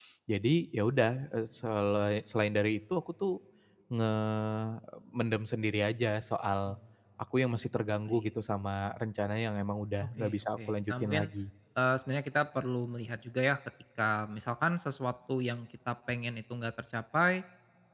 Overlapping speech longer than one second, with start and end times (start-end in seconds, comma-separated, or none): 10.0-11.3